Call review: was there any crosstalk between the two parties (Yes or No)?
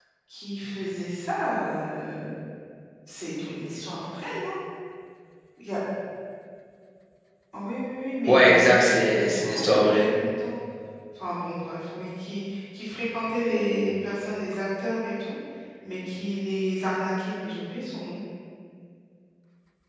Yes